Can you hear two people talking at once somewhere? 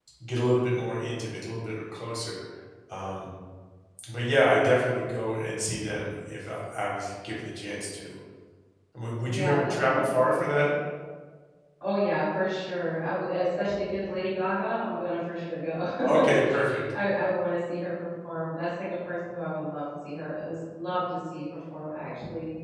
Yes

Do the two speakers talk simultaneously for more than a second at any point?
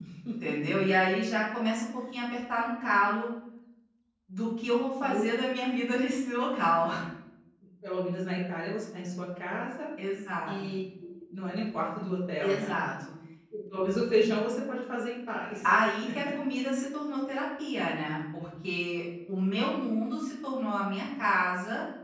No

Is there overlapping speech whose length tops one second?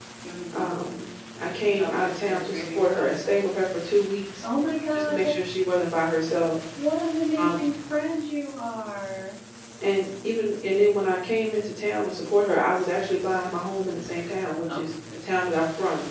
Yes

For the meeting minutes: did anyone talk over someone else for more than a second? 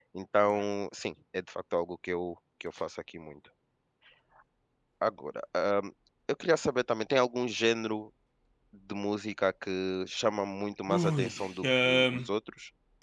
Yes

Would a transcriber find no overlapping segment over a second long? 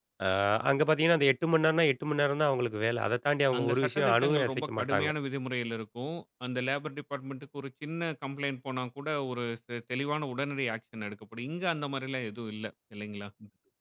No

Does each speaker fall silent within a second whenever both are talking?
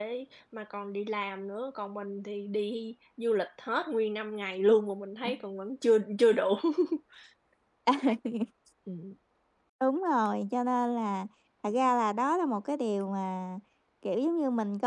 Yes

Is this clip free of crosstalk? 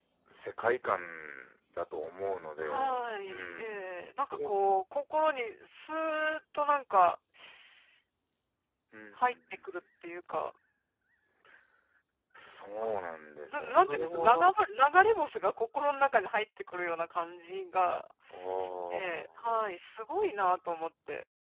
No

